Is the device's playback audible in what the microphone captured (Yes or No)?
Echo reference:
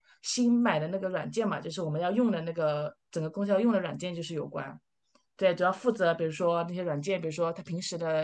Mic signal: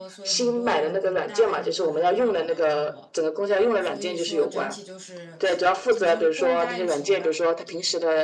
Yes